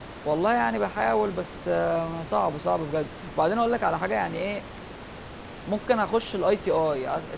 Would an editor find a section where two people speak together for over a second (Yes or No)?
No